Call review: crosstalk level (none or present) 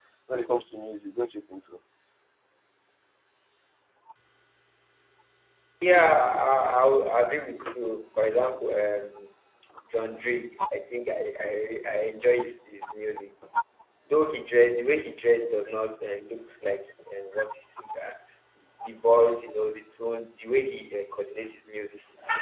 none